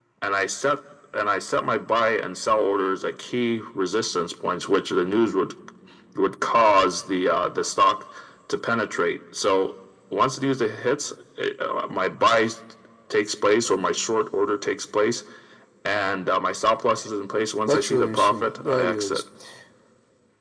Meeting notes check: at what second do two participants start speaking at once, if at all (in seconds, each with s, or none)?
17.7 s